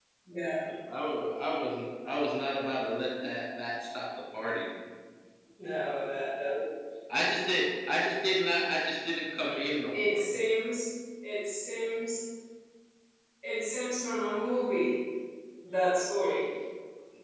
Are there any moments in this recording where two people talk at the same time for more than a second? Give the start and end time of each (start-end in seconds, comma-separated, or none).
none